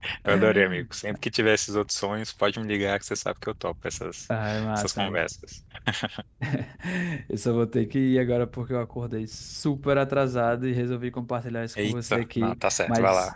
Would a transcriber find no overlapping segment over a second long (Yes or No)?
No